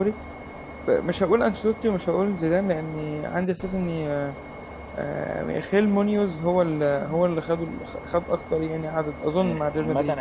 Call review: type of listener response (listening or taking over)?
taking over